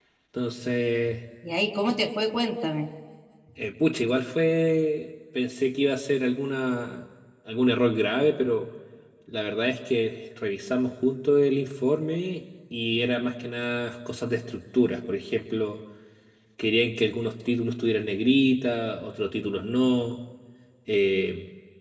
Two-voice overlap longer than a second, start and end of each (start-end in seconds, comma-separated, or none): none